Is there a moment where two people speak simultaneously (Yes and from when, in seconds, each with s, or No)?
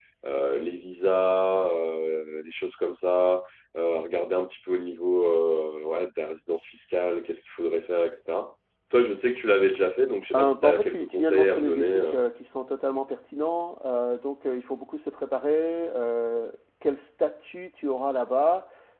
Yes, from 10.3 s